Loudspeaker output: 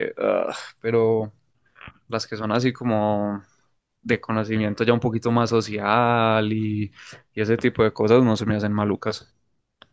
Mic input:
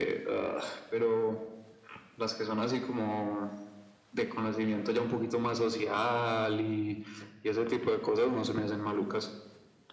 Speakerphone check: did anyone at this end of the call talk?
No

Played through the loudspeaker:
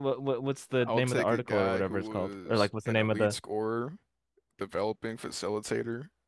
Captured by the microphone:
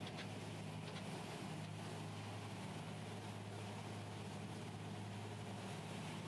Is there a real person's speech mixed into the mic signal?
No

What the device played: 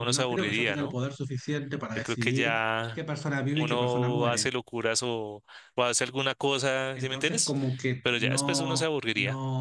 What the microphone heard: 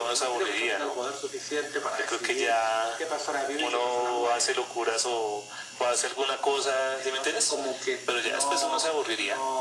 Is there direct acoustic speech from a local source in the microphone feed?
No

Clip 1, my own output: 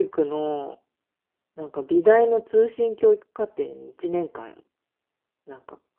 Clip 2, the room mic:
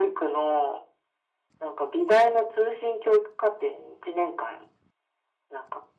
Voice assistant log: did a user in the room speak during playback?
No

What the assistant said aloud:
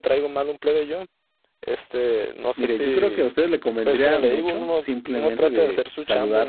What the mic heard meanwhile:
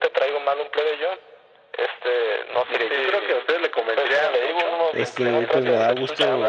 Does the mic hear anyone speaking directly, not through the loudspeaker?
Yes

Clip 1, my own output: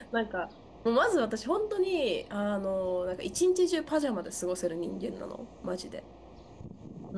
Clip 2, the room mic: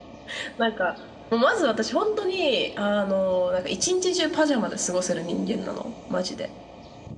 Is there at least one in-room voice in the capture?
No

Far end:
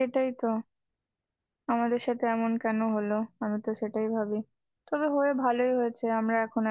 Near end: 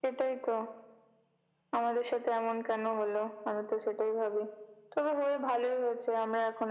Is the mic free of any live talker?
Yes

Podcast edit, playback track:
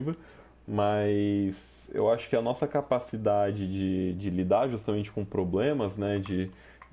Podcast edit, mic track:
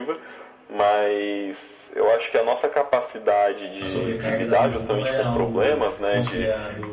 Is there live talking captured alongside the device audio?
Yes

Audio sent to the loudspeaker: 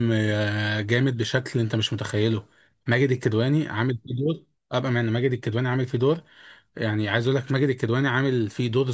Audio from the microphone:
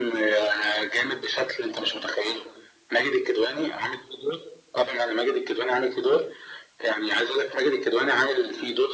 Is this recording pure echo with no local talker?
Yes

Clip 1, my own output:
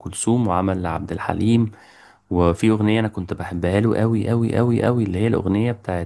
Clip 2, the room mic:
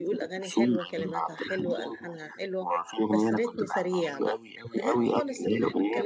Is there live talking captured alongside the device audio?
Yes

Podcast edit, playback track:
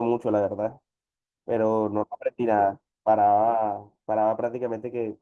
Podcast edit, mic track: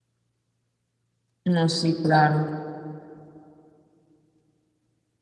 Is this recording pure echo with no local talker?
No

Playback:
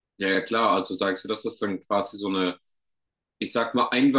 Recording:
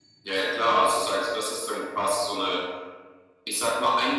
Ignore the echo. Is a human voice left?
No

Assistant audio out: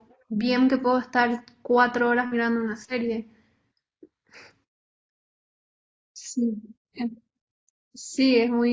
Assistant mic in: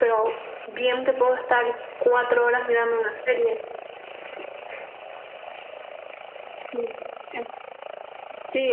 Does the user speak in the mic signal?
No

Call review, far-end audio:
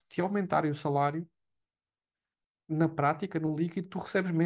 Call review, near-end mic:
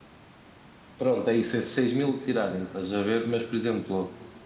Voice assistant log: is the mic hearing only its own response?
No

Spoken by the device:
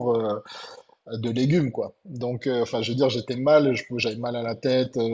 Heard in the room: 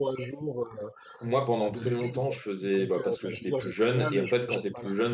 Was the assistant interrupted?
Yes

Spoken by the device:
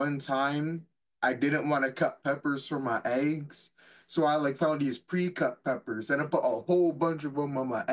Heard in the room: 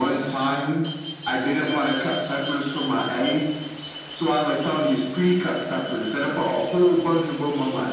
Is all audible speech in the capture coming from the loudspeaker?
Yes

